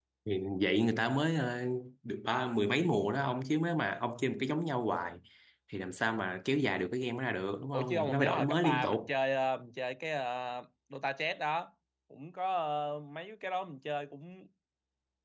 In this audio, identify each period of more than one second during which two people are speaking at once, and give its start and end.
7.7-9.1

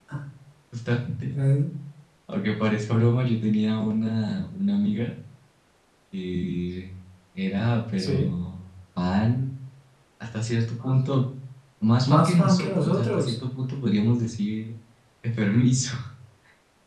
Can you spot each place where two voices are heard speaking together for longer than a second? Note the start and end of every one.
12.0-13.3

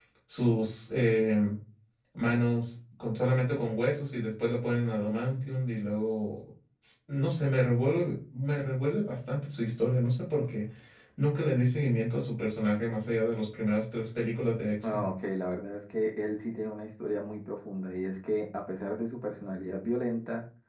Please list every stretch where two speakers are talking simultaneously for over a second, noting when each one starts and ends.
none

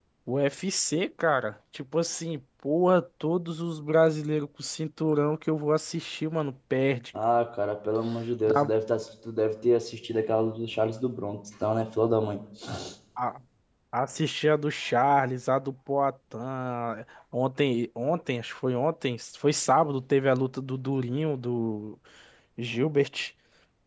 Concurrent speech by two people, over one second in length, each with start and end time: none

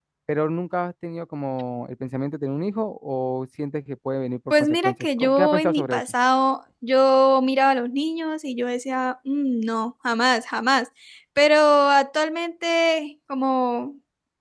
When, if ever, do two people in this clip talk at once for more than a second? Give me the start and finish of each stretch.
4.6-6.0

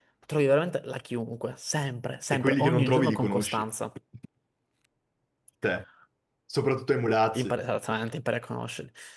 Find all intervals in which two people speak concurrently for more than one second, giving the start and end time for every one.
2.3-3.6

